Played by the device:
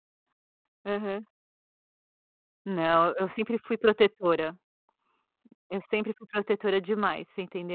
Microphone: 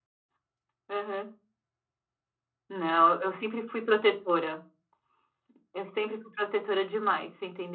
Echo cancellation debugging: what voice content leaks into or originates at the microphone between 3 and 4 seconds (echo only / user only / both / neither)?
echo only